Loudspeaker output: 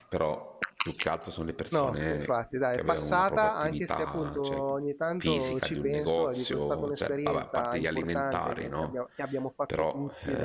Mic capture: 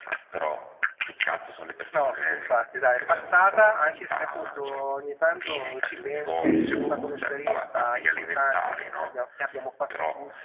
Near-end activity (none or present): present